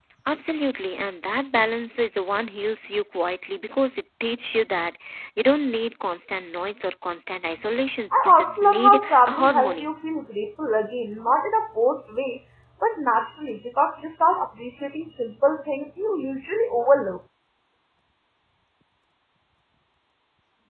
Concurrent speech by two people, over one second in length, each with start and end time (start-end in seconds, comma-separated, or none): 8.1-9.9